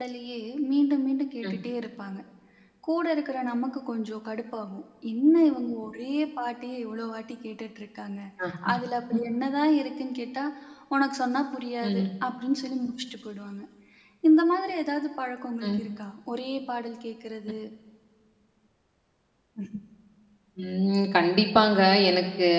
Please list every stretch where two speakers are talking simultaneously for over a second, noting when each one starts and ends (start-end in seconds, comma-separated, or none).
none